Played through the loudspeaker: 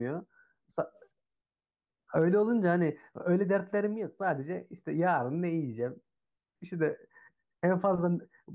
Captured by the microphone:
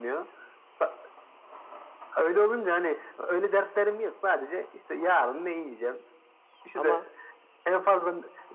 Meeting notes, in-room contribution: present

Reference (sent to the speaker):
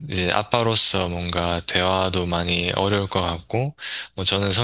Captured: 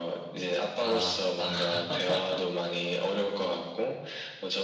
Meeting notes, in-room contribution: present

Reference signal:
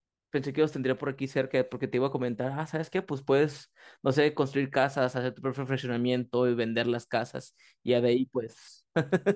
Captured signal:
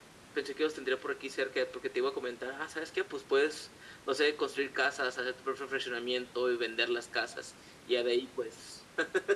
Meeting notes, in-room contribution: none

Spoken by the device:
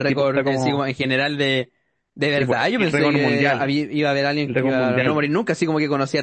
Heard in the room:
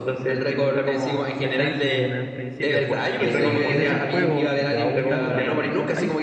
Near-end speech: present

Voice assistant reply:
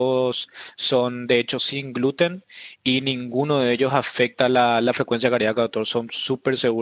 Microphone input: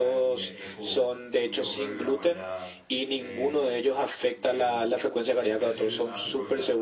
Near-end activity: present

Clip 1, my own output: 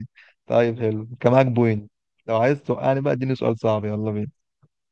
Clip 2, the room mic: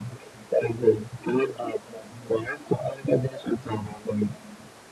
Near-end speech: none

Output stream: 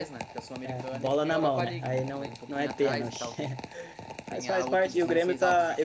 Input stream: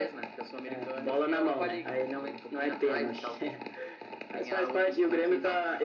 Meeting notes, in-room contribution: none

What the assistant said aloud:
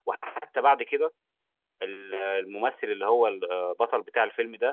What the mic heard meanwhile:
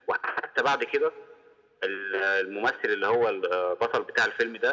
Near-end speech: none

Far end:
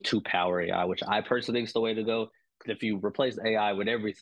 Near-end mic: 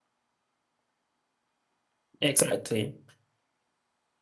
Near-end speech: present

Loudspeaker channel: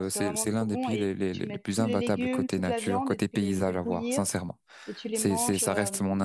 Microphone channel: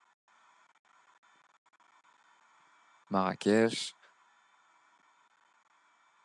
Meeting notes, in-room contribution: present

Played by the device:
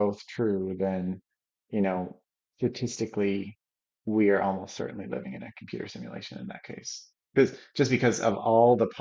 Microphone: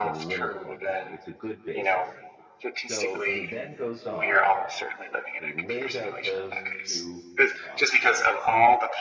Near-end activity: present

